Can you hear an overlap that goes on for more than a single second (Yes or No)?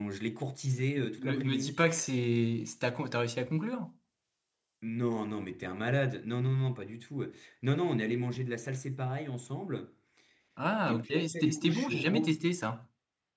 Yes